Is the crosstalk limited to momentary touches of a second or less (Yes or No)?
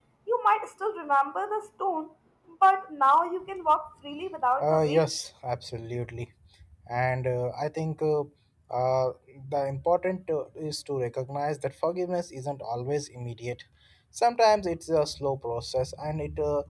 Yes